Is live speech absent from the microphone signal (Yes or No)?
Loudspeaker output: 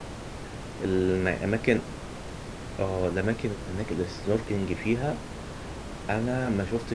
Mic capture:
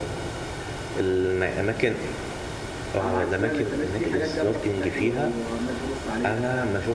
No